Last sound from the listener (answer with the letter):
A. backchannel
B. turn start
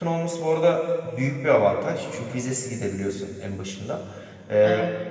A